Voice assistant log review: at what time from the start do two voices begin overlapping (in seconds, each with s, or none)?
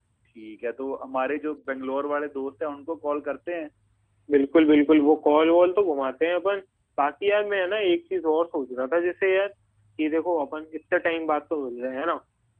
none